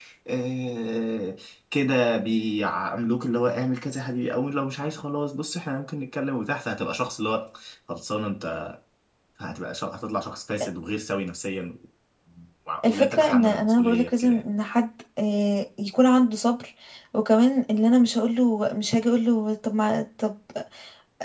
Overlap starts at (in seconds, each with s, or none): 12.9 s